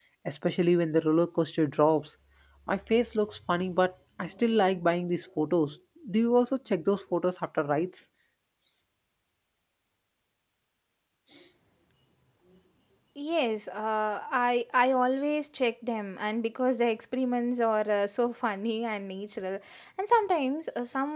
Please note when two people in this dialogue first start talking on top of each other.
none

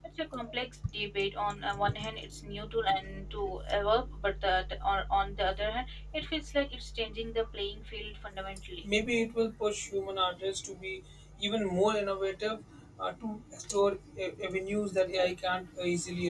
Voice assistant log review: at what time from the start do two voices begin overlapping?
none

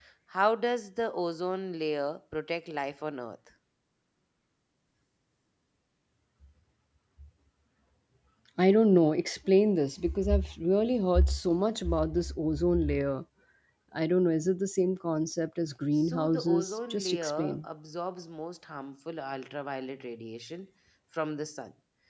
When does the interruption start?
16 s

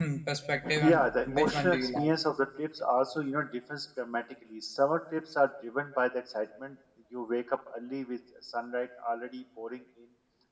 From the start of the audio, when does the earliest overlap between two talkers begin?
1 s

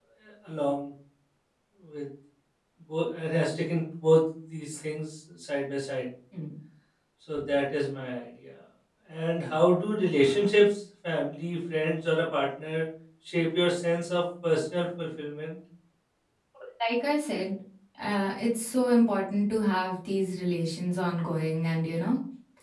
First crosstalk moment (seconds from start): none

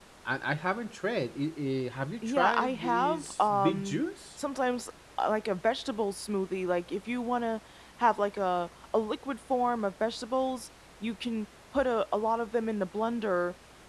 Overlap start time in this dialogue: 2 s

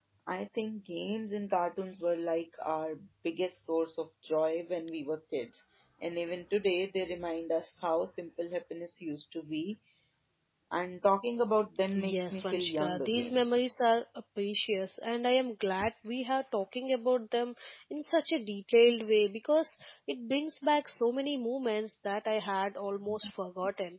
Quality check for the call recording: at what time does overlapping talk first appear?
12 s

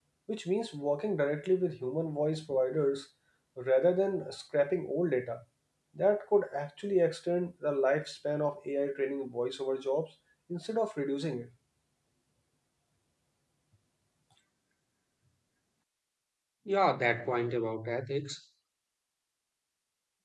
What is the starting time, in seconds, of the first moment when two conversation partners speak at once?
none

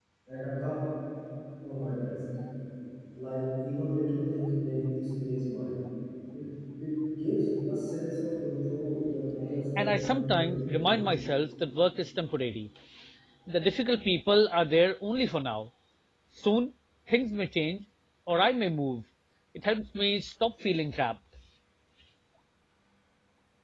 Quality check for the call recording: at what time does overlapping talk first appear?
10 s

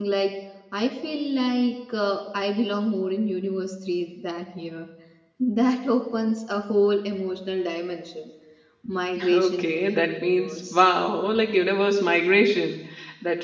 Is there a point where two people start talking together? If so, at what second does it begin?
9 s

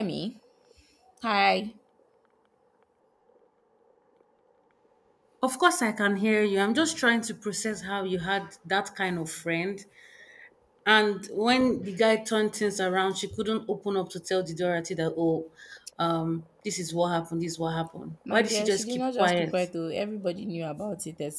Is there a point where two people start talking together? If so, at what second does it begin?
18 s

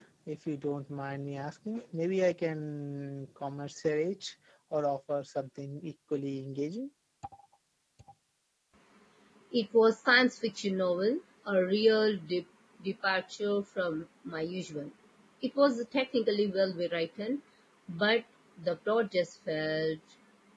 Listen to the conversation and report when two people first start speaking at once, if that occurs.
none

